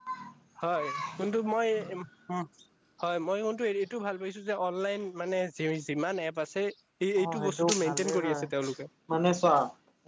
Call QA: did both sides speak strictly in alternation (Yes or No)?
No